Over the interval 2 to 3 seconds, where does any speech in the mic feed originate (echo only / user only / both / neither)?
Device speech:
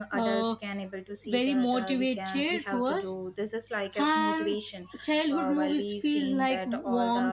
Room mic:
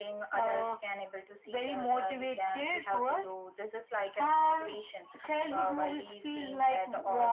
echo only